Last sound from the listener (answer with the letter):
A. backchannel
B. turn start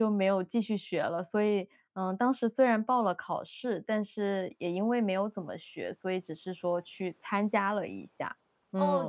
B